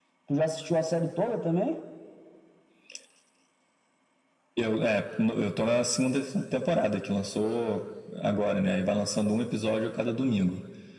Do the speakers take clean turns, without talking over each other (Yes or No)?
Yes